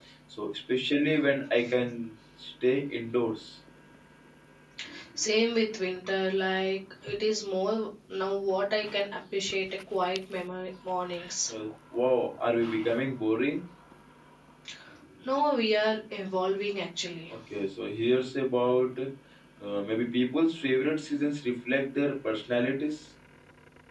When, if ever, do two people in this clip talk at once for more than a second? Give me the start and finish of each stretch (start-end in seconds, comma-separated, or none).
none